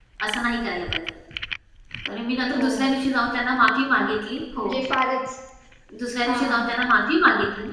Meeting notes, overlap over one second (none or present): none